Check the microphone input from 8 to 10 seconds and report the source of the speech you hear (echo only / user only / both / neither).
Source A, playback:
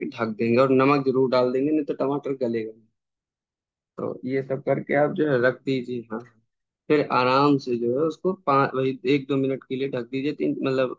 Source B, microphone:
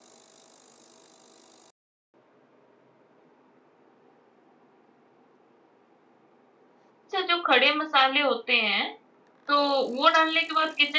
user only